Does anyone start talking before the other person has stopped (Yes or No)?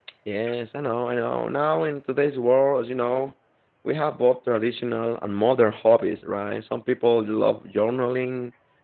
No